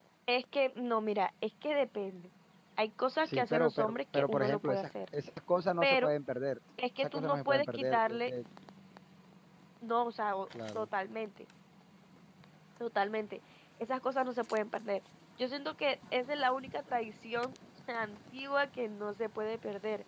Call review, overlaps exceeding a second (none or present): present